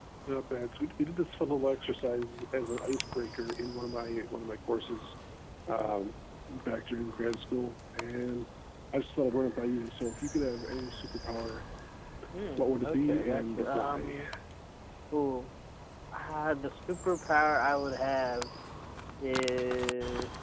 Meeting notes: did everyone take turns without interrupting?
No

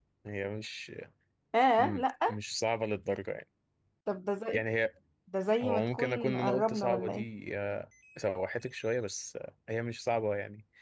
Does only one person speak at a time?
No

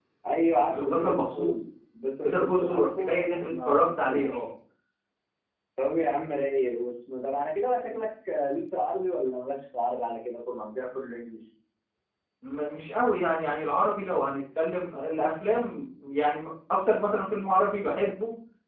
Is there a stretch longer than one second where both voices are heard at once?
Yes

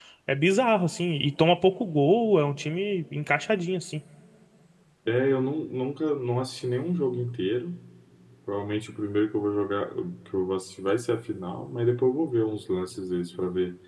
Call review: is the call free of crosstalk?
Yes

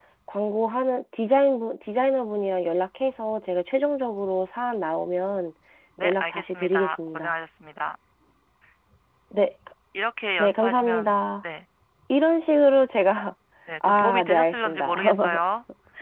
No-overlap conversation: No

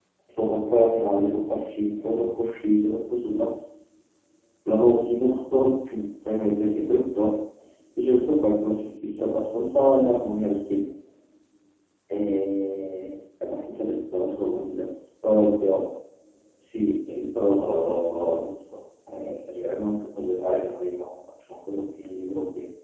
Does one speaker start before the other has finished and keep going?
Yes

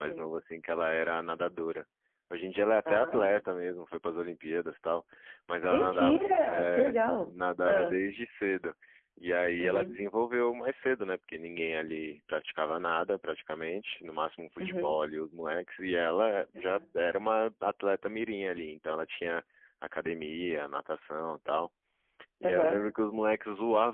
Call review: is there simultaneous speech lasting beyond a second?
Yes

